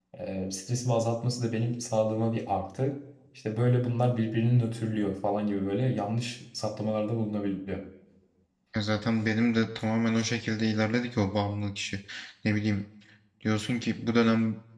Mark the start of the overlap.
none

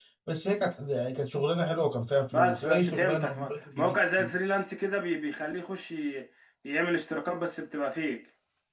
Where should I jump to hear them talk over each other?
2.3 s

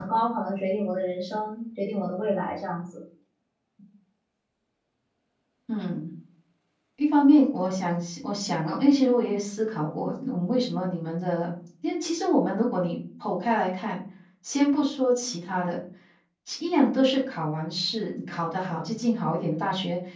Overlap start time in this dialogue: none

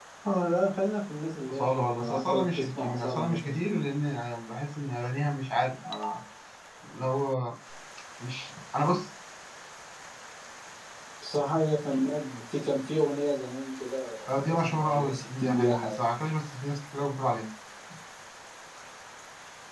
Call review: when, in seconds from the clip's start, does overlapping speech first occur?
1.5 s

